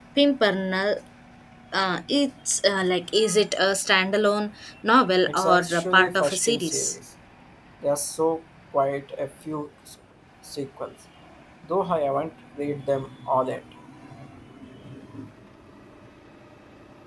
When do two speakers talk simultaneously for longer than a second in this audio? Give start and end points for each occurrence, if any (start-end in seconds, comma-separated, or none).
5.3-6.8